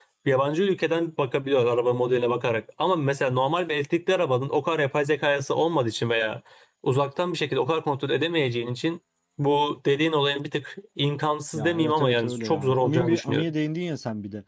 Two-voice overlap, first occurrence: 11.5 s

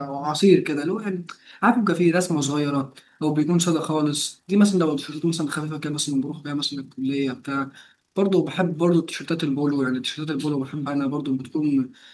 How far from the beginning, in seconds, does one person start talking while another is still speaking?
none

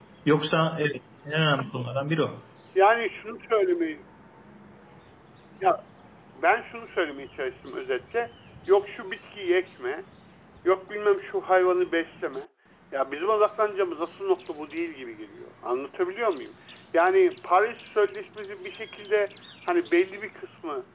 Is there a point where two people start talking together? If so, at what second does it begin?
none

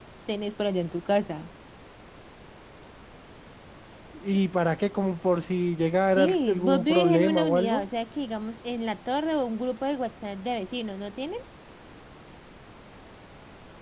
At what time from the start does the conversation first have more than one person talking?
6.2 s

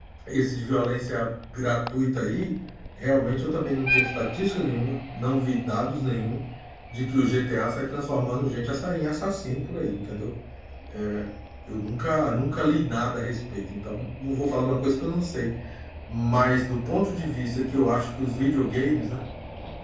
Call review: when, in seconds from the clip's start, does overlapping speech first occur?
none

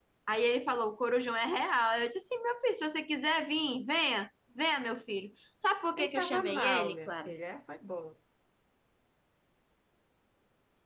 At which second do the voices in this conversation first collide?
6.0 s

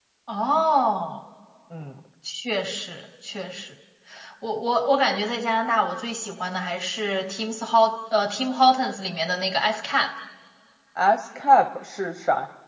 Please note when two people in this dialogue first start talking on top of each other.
none

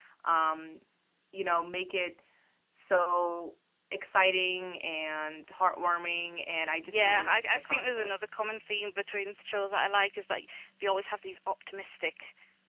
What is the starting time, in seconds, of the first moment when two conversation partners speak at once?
6.6 s

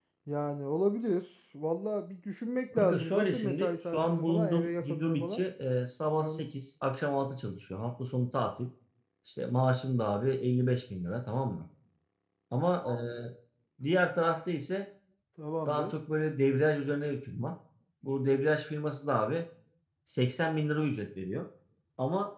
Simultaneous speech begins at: 2.8 s

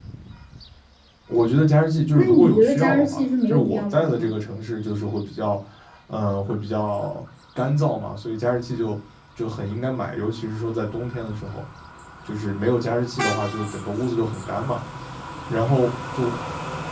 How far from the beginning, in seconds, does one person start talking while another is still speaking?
2.1 s

